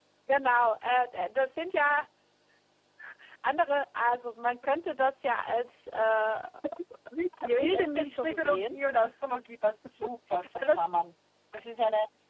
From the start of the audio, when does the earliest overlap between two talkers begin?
7 s

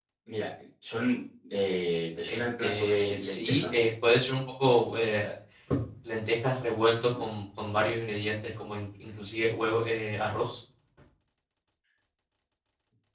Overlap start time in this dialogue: 2 s

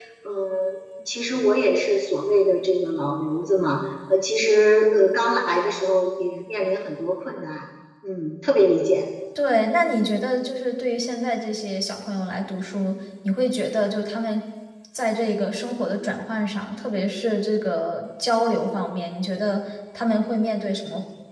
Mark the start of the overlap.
none

